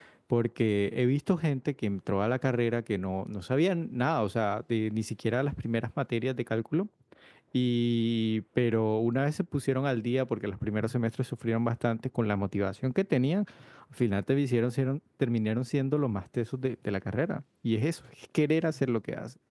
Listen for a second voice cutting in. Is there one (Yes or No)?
No